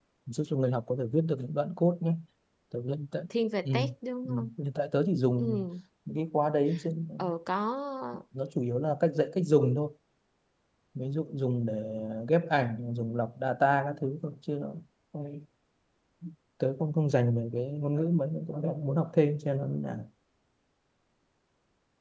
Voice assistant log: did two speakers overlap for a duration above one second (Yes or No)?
No